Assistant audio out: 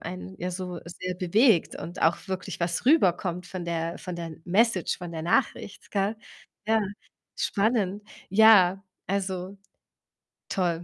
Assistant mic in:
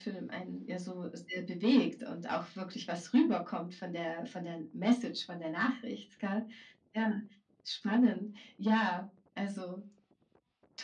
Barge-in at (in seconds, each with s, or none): none